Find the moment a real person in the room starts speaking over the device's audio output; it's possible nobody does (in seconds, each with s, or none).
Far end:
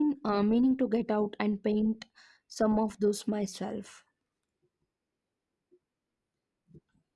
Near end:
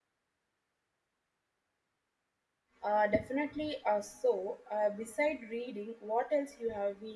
2.8 s